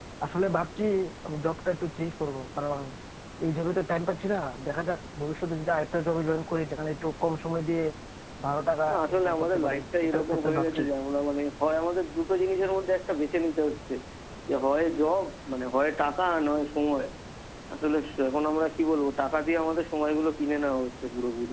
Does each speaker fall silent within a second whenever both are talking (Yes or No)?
No